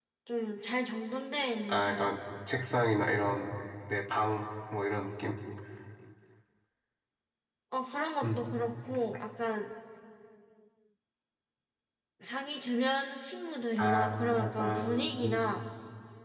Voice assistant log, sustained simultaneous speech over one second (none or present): present